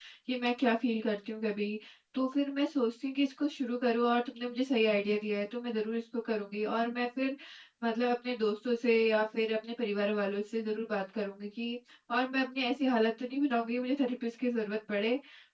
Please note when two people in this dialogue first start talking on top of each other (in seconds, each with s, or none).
none